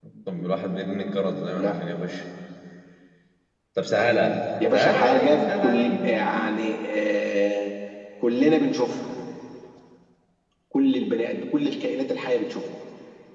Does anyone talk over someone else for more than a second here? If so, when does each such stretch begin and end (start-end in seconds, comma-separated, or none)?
4.7-6.1